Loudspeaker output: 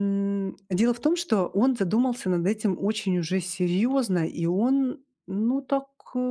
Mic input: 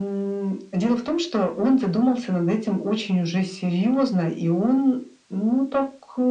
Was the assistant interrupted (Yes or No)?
No